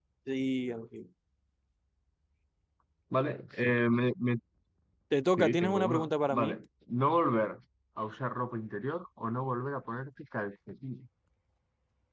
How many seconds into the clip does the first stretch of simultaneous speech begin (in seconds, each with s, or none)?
5.4 s